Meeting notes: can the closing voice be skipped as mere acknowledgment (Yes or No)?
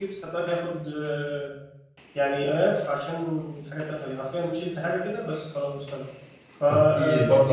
No